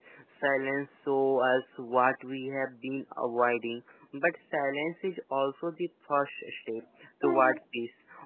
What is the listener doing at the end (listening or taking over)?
listening